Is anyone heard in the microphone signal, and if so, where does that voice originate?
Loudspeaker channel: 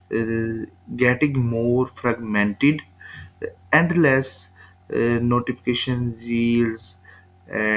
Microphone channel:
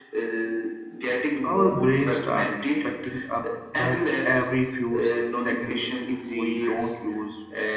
both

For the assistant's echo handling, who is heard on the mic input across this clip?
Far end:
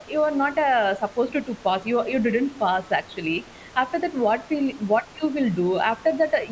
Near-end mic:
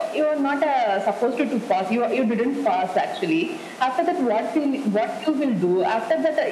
echo only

